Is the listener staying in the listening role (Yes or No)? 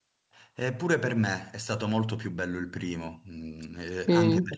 Yes